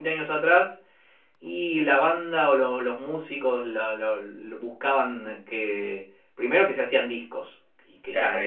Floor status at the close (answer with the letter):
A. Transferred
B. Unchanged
A